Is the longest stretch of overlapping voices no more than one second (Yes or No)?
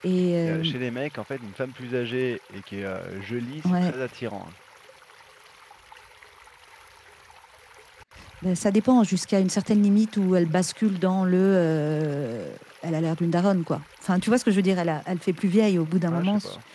Yes